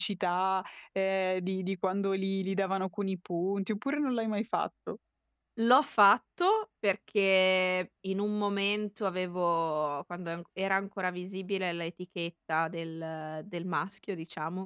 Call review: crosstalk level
none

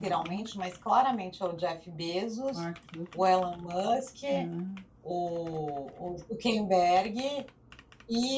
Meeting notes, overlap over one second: none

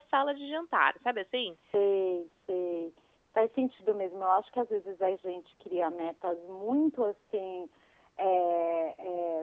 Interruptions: none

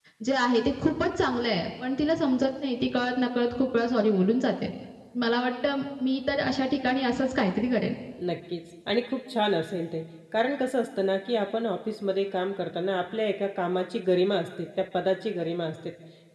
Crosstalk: none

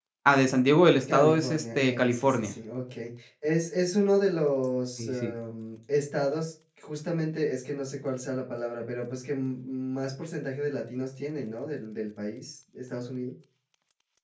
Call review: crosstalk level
present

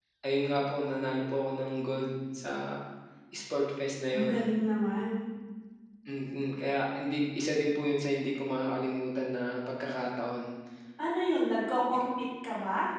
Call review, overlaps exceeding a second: none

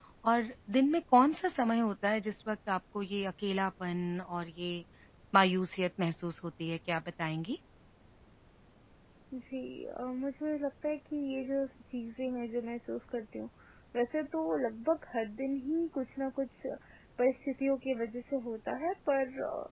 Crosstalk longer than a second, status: none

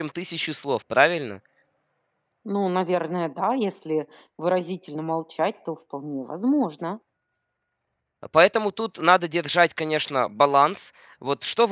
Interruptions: none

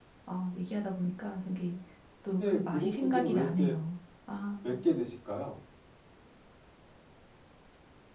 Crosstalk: present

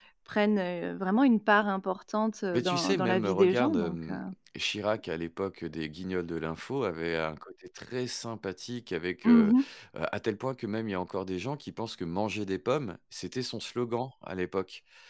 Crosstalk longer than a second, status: present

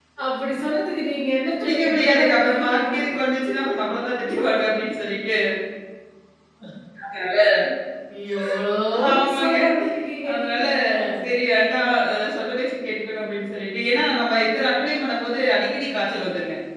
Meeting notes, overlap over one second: present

